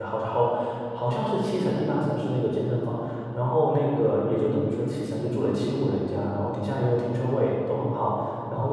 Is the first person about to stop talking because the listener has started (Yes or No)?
No